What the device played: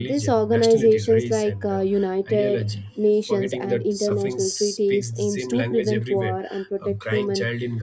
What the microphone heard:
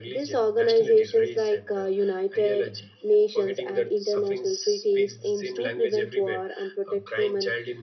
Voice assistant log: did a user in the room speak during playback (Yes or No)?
No